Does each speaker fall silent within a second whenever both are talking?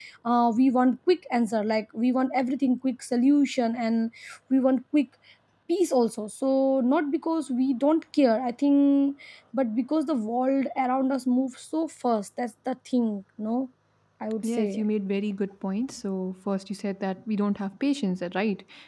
Yes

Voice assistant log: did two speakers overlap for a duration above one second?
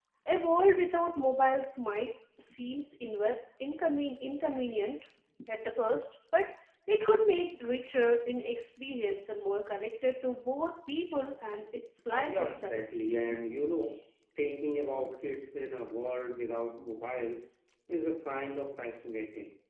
No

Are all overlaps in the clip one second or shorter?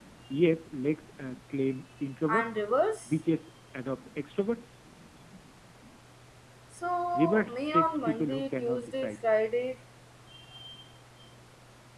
No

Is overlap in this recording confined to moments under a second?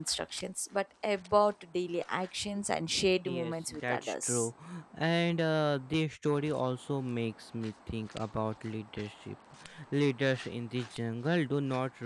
No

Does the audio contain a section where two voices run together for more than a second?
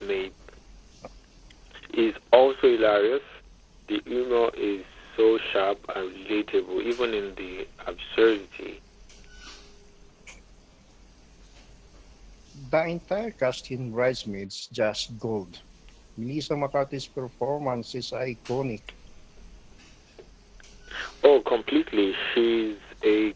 No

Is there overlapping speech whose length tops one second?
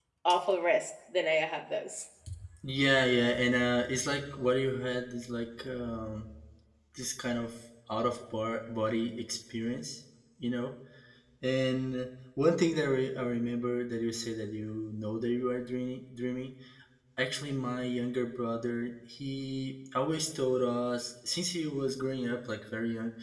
No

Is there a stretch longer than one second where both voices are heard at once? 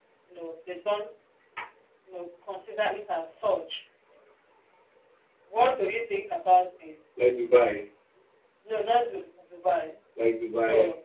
No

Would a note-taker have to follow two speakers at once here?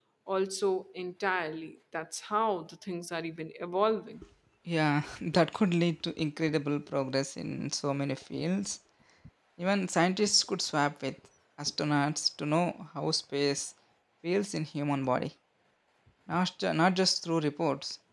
No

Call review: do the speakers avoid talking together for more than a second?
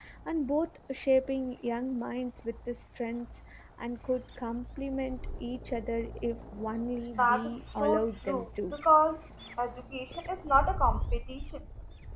No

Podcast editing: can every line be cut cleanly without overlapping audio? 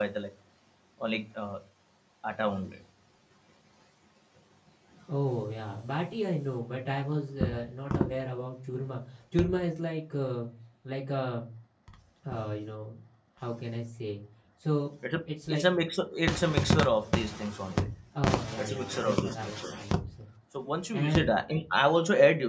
No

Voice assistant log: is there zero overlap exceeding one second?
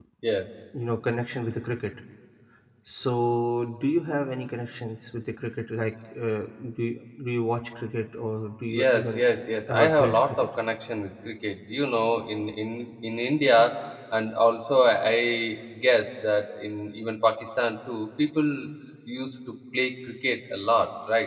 No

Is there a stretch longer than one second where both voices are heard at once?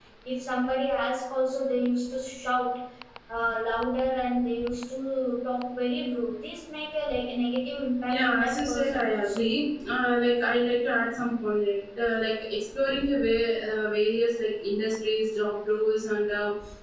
Yes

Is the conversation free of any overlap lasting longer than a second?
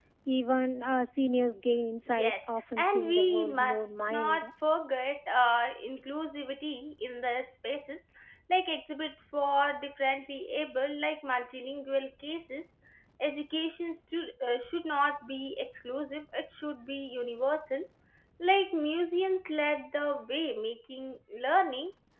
No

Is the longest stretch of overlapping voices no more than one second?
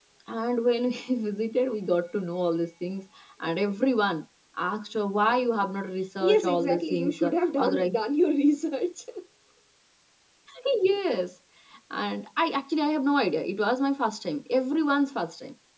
No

